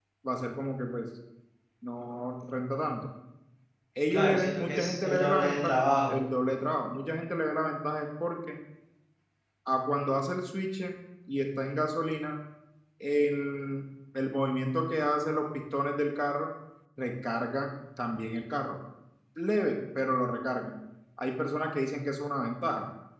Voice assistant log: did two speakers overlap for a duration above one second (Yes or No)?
Yes